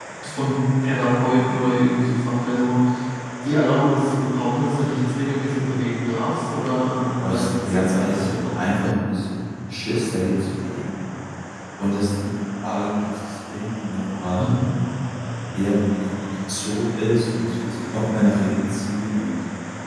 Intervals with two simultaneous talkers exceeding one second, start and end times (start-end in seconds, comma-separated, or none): 7.2-8.6